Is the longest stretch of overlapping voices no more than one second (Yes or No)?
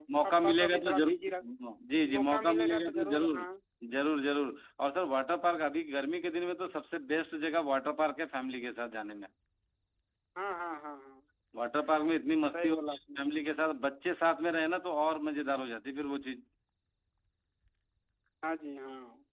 No